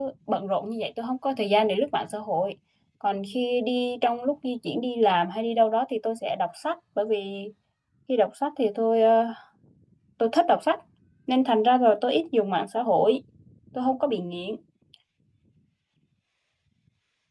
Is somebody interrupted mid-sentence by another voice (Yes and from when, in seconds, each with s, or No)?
No